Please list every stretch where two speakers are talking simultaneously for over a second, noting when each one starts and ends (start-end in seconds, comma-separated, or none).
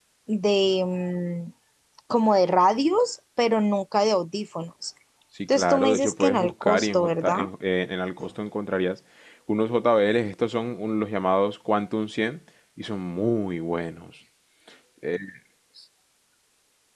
5.5-7.5